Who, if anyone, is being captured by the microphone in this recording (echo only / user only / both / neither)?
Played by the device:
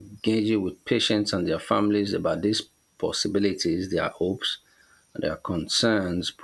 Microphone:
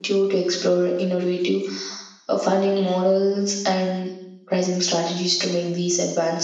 user only